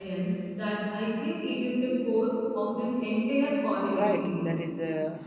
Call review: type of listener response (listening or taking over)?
taking over